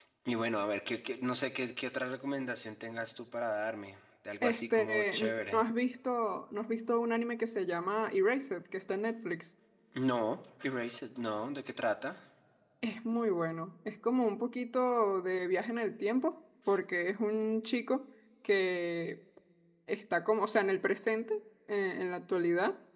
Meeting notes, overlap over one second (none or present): present